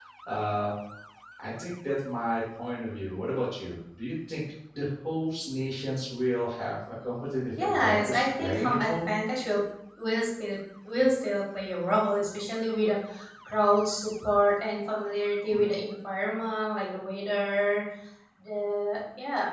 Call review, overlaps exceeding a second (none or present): present